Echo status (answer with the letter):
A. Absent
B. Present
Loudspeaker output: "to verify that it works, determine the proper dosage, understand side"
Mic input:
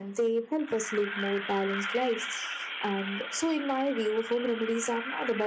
A